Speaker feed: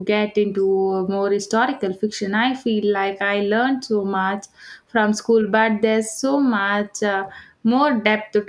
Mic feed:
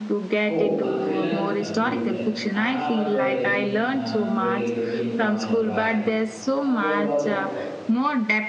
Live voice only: Oh, a thriller? Uh, do tell. I haven't read any uh, truly gripping one in a while. Uh, what was it called?

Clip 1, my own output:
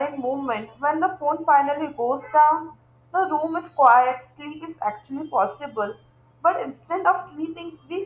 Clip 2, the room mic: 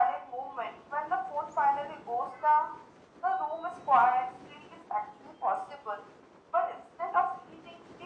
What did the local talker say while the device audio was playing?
none

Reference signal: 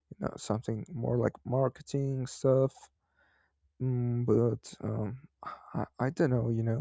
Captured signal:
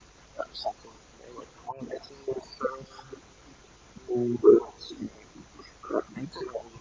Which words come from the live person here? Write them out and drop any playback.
none

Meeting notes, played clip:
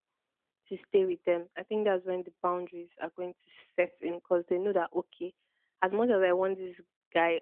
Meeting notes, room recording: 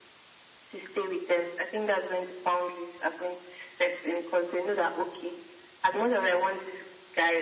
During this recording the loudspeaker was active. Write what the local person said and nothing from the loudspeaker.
none

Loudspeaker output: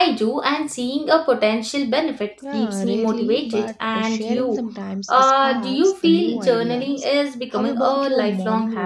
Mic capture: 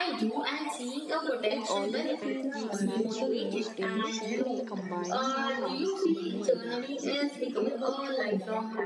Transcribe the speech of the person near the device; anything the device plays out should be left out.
It already feels natural most days. Maybe combining our habits could make

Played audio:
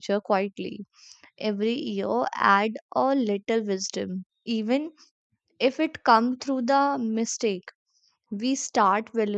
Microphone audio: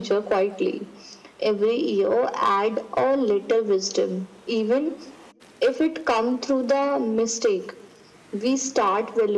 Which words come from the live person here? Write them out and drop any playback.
none

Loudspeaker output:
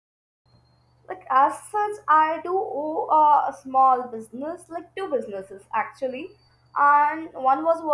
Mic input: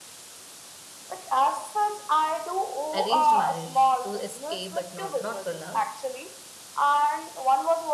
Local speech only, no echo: arranged marriage to escape, but not not for love.

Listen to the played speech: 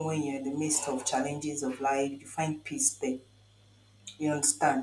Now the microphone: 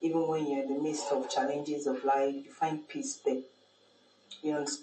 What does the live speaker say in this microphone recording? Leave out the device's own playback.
none

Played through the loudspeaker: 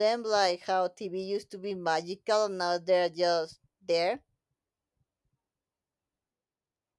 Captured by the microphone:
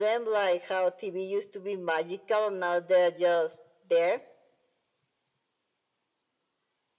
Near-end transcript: none

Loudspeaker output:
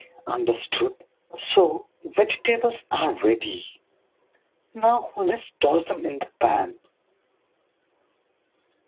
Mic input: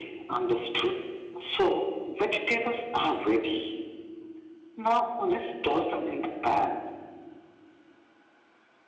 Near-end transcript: none

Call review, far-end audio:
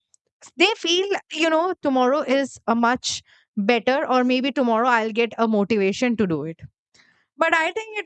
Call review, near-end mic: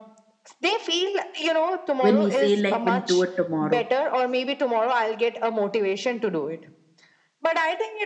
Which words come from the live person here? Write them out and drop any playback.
when we say like we'll do it tomorrow

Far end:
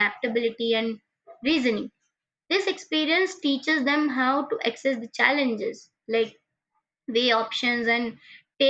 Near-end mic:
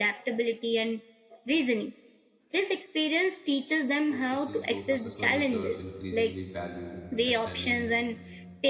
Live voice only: So if you see those assessment methods increasingly value understanding,

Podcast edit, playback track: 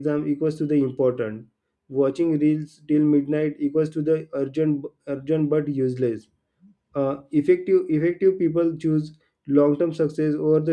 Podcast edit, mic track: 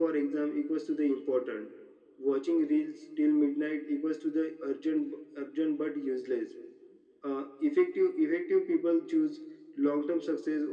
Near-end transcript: none

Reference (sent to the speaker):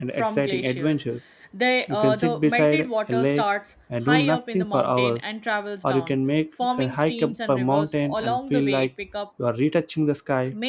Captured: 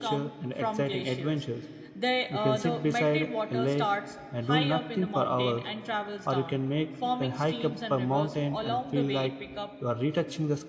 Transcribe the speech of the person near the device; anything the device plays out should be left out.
none

